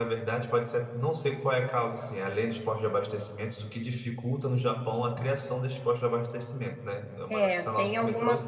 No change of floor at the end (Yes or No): No